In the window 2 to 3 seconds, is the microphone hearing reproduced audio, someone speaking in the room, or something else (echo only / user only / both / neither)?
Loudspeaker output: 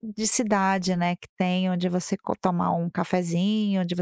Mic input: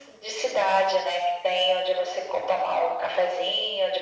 echo only